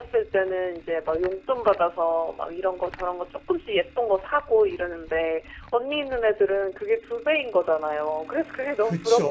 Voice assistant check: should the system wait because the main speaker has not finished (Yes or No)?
No